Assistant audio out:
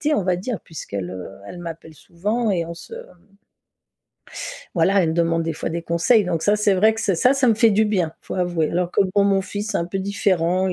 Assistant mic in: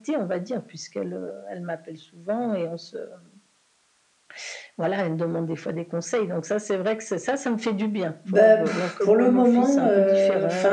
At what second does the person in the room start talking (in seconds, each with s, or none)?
8.2 s